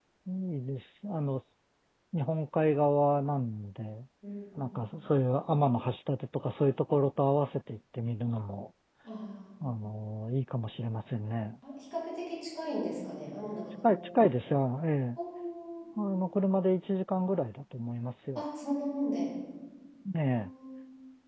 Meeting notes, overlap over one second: none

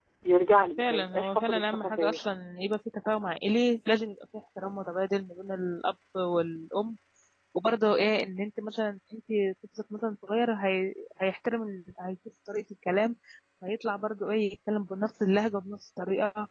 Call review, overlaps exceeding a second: present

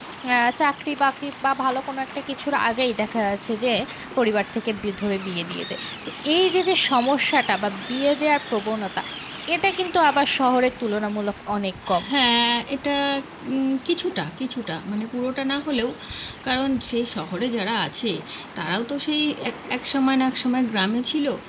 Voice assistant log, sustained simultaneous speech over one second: none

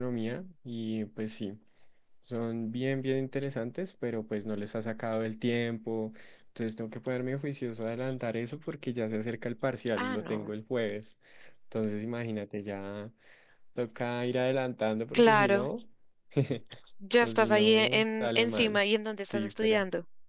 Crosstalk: present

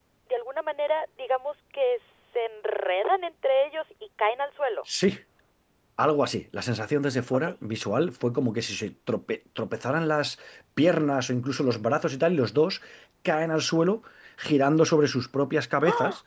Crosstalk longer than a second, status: none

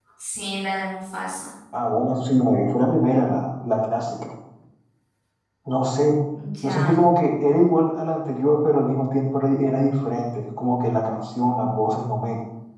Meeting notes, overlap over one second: none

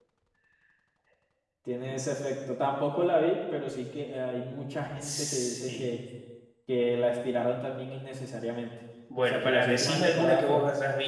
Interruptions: present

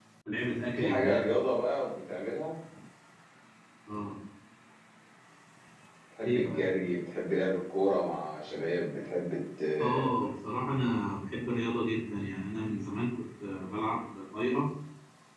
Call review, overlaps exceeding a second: none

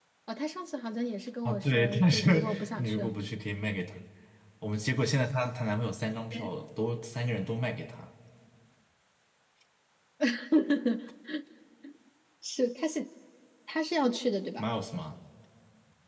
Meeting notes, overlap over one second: present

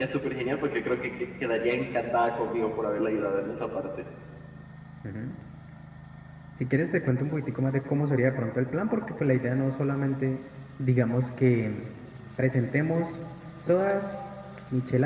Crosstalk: none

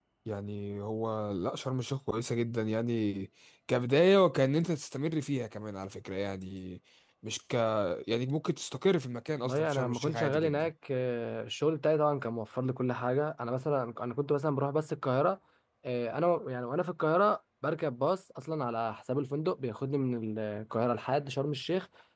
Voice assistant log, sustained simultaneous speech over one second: present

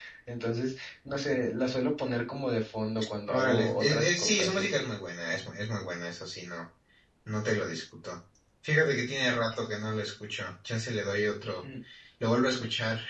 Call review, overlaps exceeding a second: present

